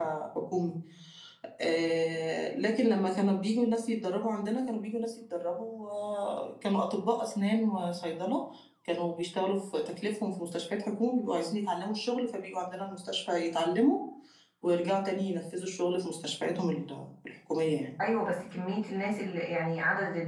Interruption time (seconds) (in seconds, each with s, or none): none